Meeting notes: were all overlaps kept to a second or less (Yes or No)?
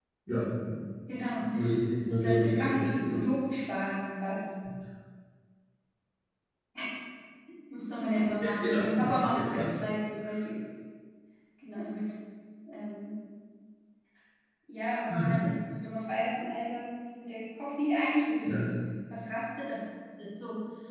No